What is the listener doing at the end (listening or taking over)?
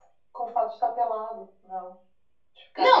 taking over